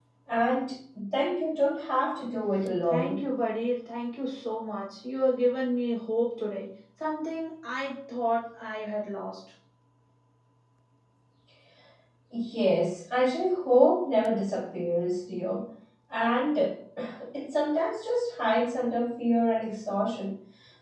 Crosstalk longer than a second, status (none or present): none